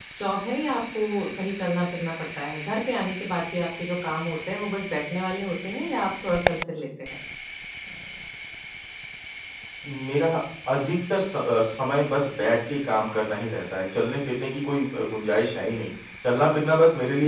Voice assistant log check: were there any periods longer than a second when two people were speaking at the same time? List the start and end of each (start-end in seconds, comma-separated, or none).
none